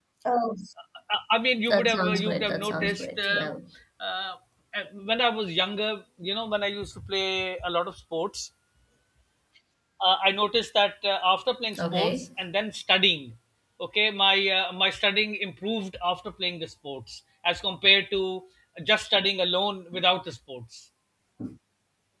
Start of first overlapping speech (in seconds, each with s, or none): 1.7 s